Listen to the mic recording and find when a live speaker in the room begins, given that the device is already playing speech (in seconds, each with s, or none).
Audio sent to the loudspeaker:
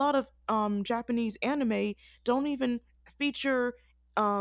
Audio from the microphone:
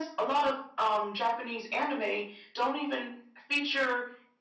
none